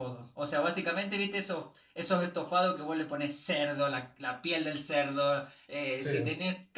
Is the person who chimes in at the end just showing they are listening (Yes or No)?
Yes